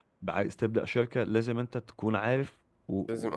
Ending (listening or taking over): listening